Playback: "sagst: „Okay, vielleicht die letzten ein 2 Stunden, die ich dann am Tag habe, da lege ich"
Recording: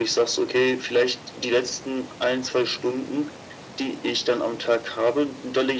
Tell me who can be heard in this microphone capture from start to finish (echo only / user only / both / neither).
echo only